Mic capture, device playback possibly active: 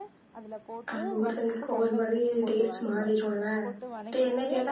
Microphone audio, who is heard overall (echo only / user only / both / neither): both